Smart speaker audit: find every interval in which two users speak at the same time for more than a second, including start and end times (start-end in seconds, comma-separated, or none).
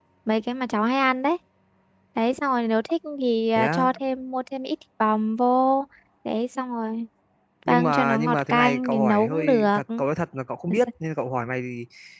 7.7-9.8